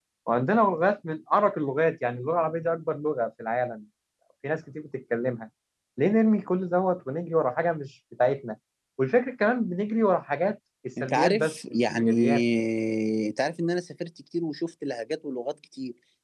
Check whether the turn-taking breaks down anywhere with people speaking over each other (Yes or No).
Yes